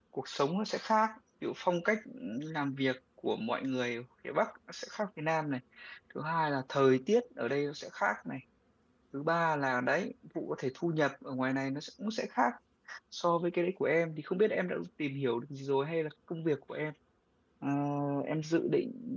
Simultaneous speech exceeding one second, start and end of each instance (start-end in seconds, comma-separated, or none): none